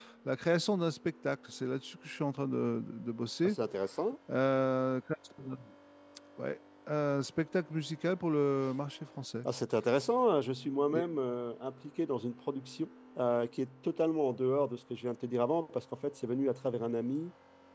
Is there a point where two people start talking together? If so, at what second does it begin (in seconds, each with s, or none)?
none